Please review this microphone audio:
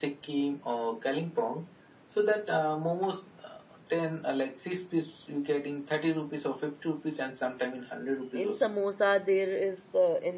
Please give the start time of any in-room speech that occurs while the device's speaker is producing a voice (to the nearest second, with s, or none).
8 s